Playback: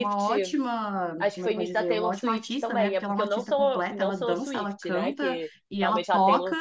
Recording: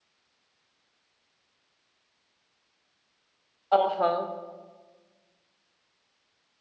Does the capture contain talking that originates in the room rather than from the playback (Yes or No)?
Yes